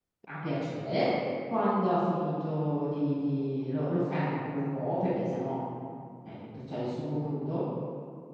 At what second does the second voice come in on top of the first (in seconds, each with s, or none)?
none